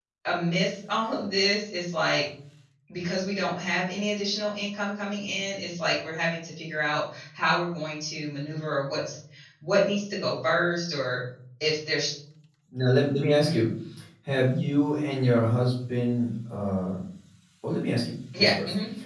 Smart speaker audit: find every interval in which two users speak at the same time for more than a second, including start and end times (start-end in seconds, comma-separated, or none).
none